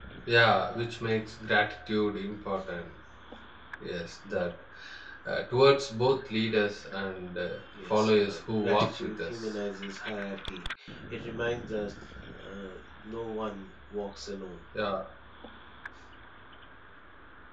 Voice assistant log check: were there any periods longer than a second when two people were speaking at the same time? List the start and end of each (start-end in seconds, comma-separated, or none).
7.8-9.5